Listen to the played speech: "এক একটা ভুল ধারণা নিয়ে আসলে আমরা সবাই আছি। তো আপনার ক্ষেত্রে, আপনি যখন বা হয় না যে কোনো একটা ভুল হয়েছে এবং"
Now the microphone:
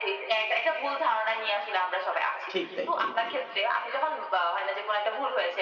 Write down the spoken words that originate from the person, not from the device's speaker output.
ঠিক তাই, ঠিক তাই।

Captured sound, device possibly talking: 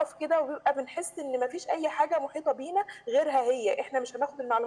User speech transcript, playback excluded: none

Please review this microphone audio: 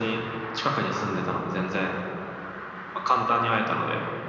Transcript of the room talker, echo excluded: none

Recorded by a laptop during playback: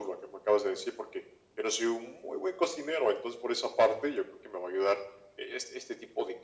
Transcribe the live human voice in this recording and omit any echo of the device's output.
none

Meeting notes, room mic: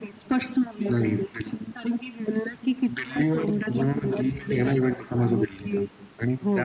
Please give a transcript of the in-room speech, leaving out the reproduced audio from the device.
none

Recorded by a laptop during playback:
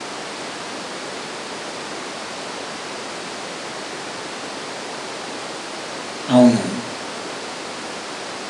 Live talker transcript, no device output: అవును.

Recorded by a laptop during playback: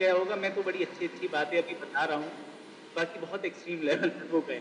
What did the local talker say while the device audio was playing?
none

